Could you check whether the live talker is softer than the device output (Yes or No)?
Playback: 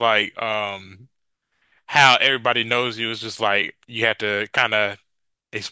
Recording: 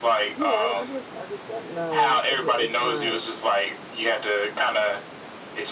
Yes